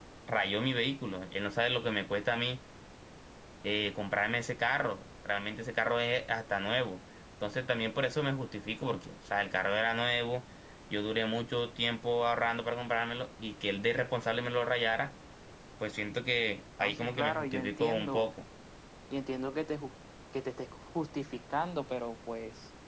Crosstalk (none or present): present